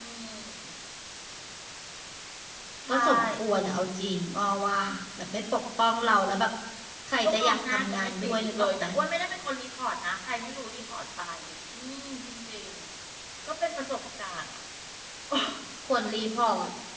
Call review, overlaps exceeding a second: present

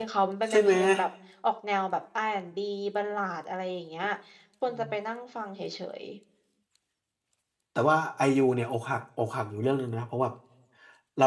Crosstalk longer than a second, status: none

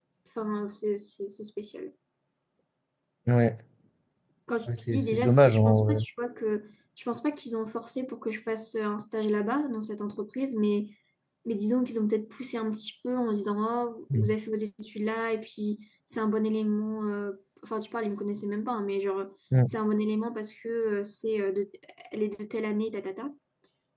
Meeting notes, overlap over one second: present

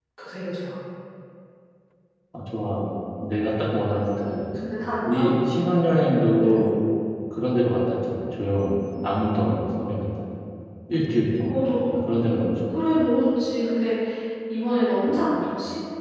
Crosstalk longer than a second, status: none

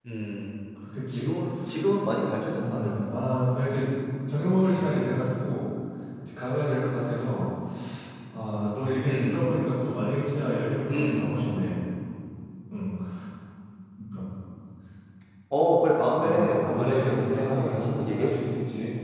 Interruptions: present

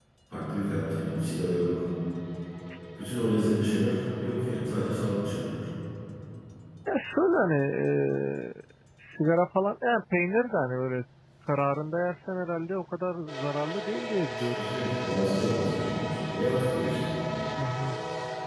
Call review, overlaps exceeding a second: none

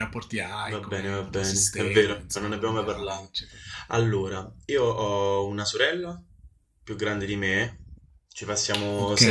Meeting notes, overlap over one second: present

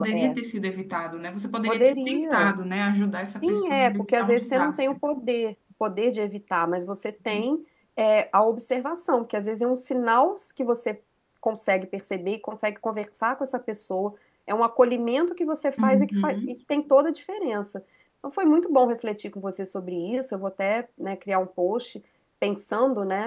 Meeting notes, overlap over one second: present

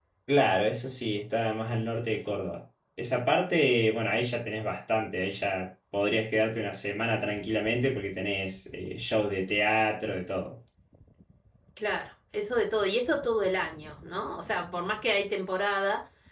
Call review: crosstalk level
none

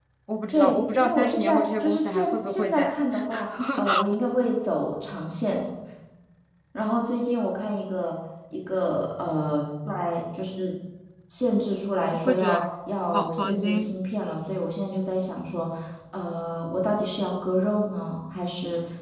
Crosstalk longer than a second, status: present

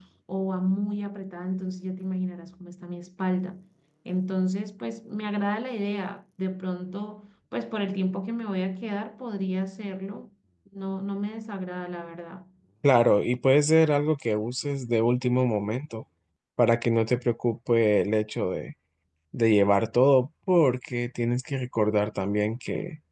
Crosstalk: none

